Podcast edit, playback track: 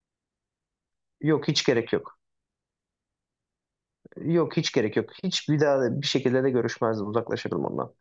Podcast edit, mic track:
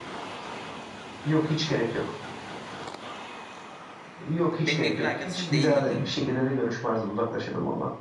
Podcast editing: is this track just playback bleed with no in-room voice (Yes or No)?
No